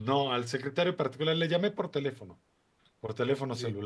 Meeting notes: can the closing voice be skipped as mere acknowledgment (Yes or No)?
Yes